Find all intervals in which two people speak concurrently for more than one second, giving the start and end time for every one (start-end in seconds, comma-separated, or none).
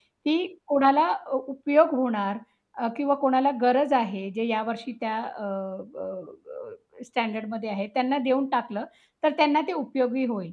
none